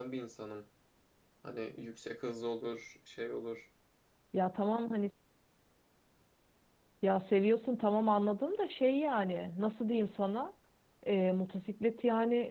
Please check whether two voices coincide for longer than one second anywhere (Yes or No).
No